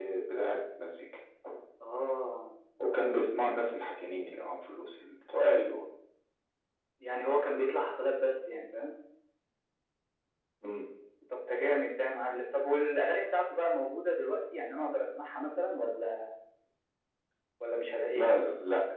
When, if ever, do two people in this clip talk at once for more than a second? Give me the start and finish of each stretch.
none

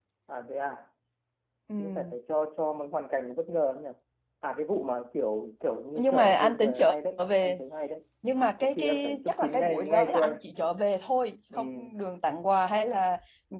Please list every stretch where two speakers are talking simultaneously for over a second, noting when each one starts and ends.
6.0-7.6, 8.6-10.4

